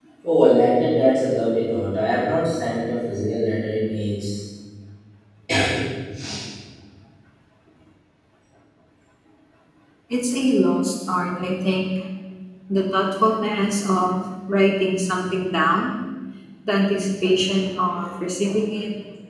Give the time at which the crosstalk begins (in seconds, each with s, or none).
none